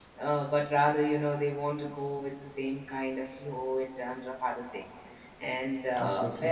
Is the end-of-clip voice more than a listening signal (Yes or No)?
No